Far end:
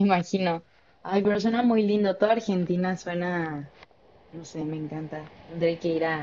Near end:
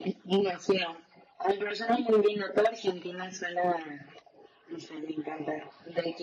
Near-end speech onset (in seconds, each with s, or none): none